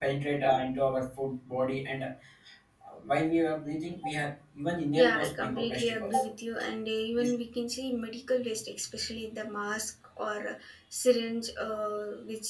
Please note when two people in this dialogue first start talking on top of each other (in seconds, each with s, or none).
4.9 s